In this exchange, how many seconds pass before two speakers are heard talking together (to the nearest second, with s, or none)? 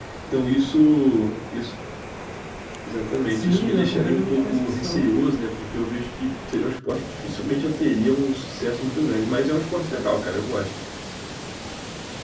3 s